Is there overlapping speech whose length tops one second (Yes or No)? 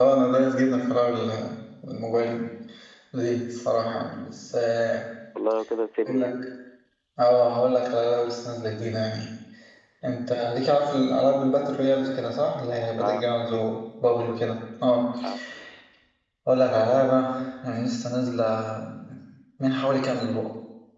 No